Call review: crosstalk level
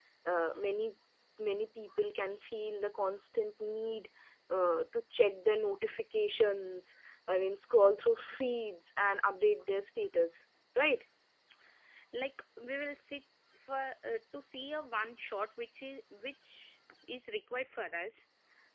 none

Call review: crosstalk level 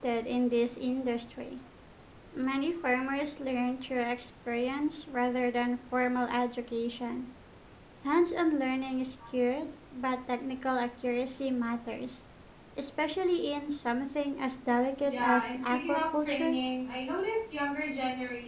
present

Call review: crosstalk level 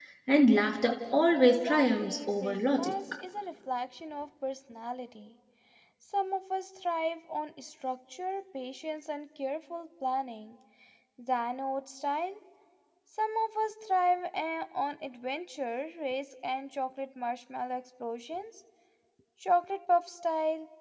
present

